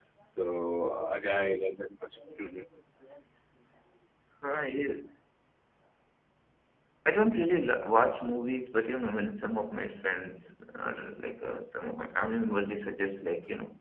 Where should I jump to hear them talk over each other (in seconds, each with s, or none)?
none